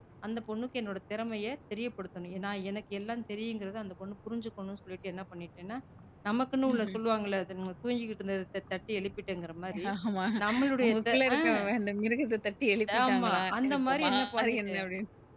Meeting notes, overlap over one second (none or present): present